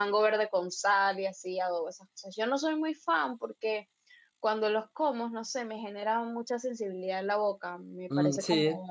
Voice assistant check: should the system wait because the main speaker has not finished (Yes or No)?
No